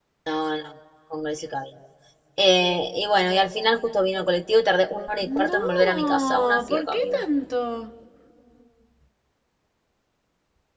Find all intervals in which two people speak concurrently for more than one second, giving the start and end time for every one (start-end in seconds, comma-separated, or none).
5.5-7.2